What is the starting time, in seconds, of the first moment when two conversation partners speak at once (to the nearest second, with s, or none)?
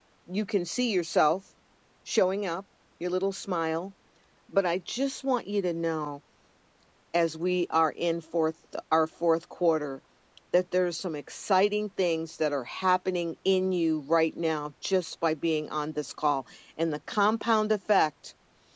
none